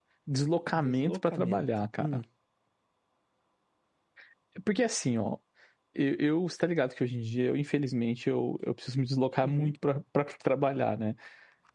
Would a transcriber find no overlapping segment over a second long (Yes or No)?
No